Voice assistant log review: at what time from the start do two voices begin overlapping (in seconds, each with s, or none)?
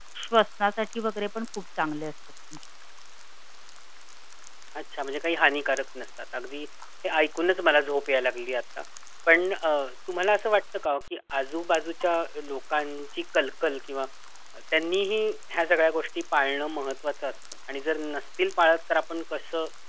none